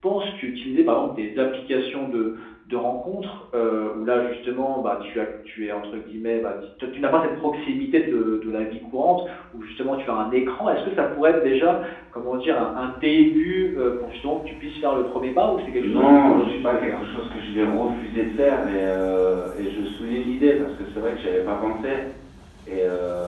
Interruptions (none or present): present